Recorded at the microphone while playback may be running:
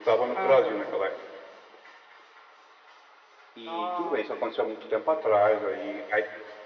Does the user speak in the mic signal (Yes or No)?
No